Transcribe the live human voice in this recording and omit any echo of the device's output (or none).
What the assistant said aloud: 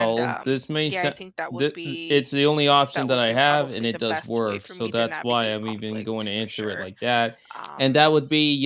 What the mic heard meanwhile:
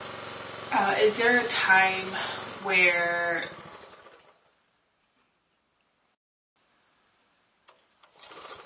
uh, is there a time where,